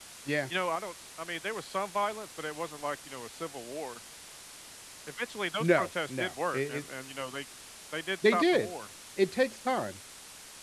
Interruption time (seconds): 6 s

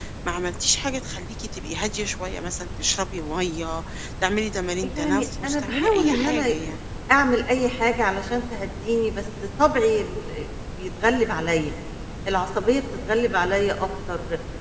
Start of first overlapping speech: 5 s

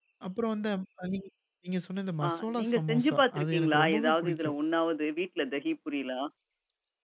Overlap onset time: 2 s

